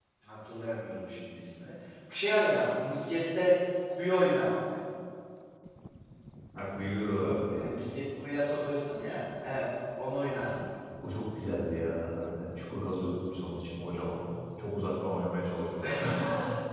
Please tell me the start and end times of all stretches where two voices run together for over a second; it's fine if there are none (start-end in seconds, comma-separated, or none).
none